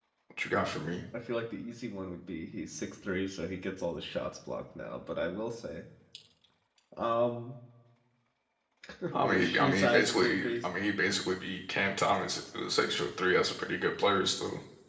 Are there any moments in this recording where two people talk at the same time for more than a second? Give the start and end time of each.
9.2-10.7

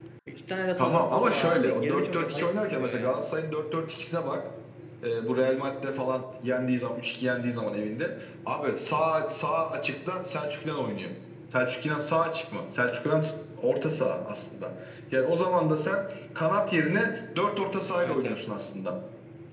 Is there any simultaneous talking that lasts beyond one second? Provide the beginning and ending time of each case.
0.8-3.2

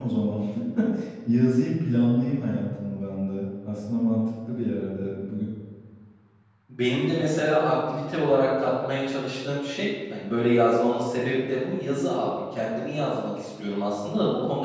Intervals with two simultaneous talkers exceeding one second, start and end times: none

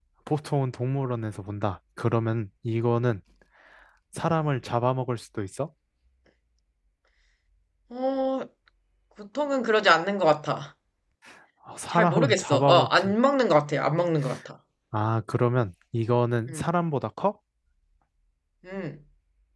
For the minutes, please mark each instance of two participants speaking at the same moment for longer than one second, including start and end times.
11.9-13.1

